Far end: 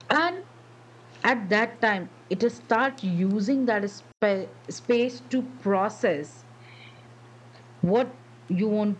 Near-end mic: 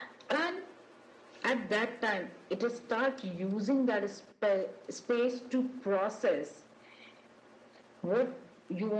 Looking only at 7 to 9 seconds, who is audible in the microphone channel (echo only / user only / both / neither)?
echo only